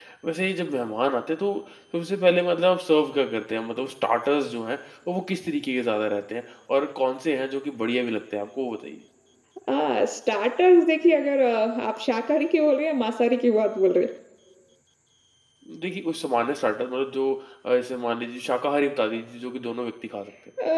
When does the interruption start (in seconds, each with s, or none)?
none